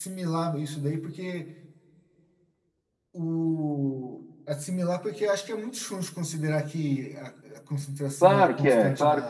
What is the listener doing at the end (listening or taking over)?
taking over